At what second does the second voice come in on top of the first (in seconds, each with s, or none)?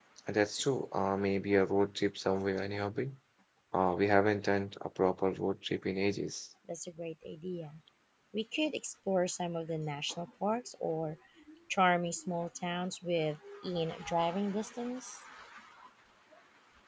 none